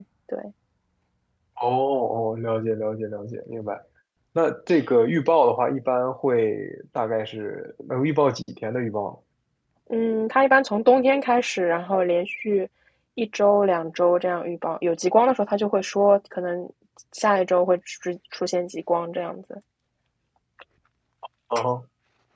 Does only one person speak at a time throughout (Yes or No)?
Yes